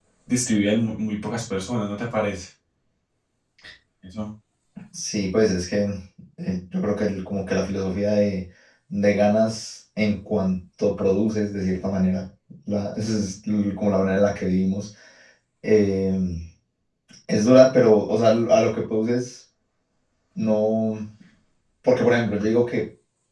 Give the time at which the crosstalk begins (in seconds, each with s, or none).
none